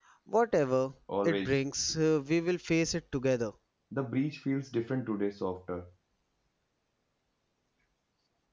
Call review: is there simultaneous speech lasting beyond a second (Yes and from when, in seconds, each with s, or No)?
No